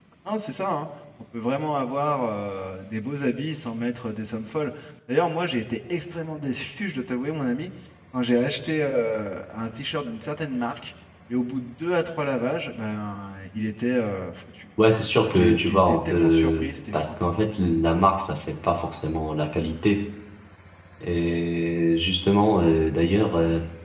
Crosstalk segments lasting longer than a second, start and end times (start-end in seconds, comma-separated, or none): 15.3-17.0